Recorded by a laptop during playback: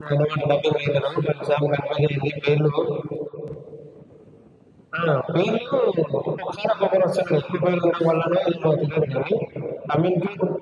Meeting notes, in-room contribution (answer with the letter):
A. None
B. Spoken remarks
A